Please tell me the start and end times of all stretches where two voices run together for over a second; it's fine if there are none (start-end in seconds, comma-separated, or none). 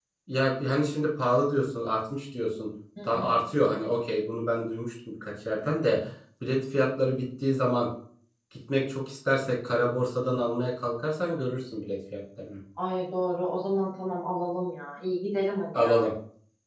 none